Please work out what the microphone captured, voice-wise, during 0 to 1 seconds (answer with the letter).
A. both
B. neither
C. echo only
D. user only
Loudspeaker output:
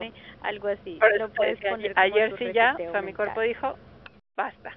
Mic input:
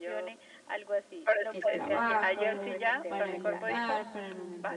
C